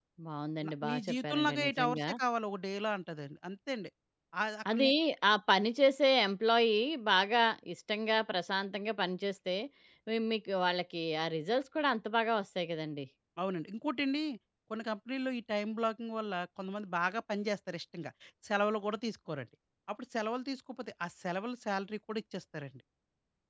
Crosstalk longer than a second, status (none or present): present